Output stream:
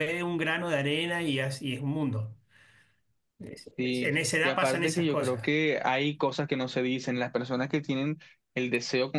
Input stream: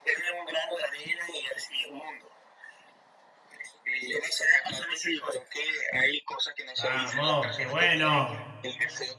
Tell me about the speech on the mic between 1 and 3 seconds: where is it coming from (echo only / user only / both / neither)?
echo only